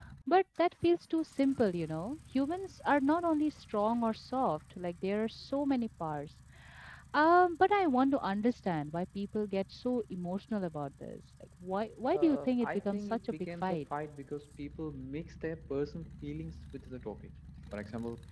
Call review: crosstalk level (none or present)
present